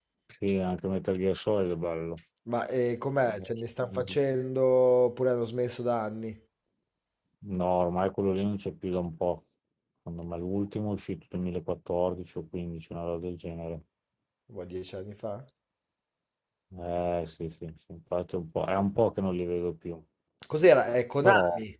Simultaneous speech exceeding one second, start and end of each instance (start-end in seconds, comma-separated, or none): none